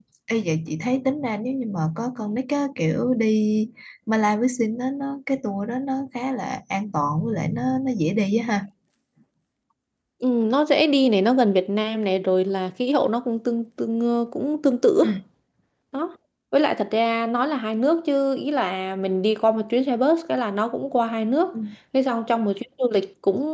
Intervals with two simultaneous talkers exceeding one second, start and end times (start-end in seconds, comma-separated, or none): none